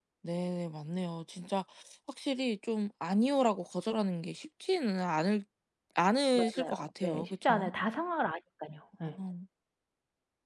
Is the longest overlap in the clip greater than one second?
Yes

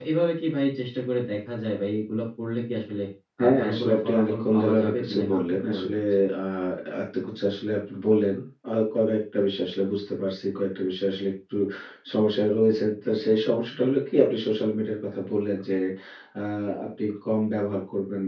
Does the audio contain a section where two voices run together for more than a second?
Yes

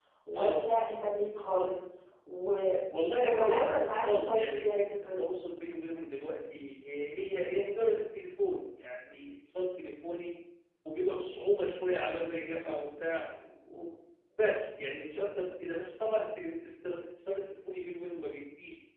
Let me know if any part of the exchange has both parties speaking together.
Yes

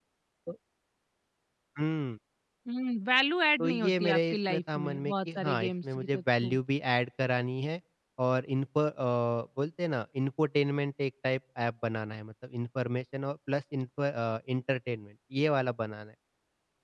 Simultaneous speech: Yes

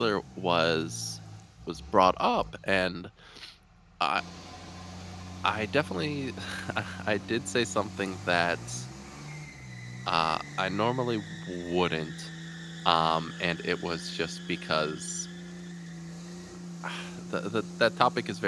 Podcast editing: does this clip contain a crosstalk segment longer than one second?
No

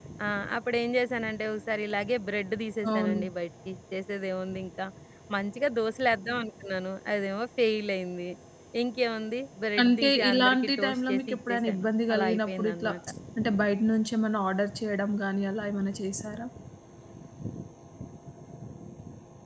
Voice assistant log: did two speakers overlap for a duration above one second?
Yes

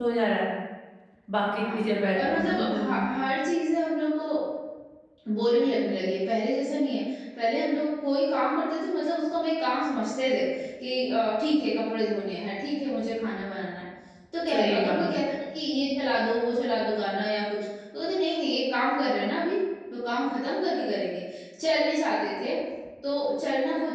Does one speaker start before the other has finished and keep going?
Yes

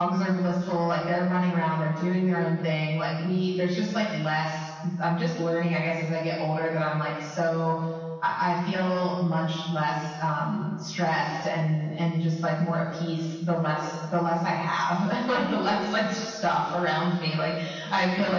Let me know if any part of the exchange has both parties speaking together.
No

